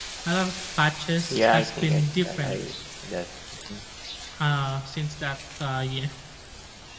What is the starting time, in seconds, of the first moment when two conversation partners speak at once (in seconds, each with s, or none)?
1.3 s